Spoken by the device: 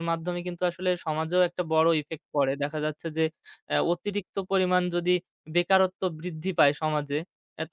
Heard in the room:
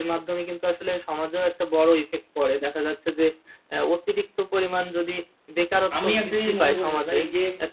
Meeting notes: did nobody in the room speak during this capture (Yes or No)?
No